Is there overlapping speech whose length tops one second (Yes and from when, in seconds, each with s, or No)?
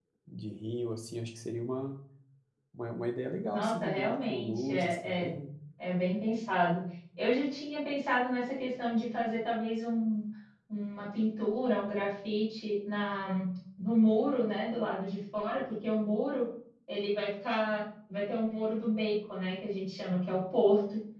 Yes, from 3.5 s